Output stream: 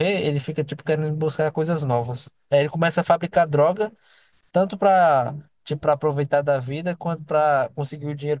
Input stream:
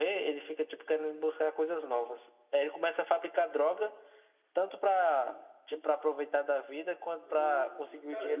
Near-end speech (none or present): present